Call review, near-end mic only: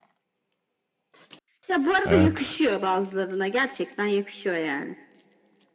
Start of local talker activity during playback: 2 s

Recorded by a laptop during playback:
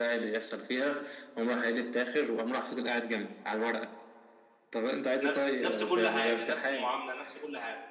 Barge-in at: 5 s

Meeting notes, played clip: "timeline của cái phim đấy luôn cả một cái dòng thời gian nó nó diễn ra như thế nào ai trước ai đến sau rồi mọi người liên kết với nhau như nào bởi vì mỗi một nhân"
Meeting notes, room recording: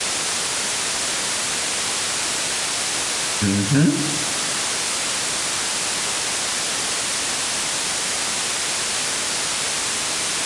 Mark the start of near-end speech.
3 s

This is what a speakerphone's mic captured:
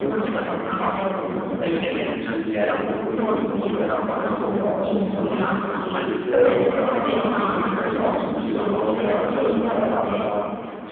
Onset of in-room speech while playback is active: 2 s

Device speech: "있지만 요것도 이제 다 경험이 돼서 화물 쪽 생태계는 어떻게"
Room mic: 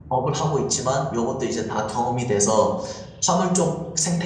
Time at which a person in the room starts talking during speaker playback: none

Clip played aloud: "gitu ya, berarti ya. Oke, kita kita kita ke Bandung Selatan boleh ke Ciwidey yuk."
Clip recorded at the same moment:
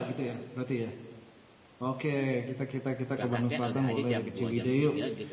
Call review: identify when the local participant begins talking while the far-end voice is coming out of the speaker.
3 s

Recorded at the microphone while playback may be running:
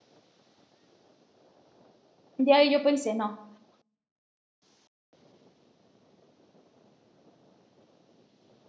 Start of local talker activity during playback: 2 s

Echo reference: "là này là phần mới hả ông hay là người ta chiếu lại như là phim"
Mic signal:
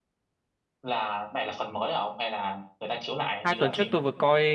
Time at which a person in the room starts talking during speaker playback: 3 s

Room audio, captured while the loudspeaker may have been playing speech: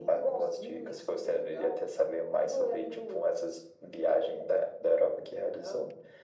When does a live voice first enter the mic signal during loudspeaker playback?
none

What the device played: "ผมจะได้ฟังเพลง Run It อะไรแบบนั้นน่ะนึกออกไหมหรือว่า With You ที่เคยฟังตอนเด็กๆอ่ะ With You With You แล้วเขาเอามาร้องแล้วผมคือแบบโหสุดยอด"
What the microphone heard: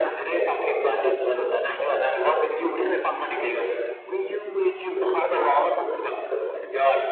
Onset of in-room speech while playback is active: none

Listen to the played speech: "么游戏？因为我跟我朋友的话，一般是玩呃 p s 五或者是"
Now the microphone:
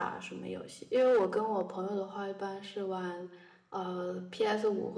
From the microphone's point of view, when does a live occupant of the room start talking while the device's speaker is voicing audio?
none

